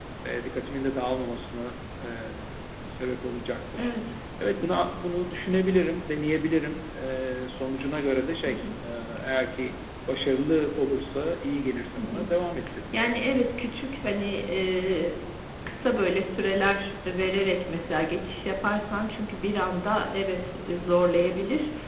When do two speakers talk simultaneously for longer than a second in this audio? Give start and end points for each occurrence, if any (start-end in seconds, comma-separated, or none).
none